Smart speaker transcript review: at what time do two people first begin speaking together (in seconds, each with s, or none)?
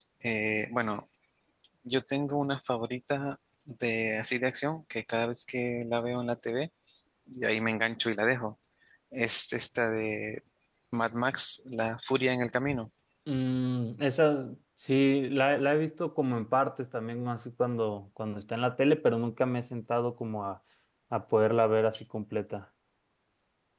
none